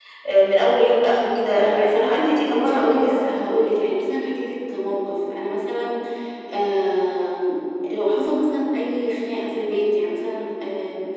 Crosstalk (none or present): present